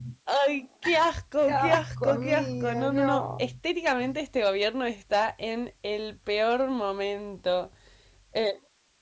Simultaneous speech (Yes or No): Yes